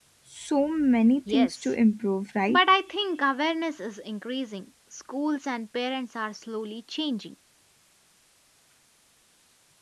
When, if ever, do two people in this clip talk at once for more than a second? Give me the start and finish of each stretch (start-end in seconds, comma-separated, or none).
none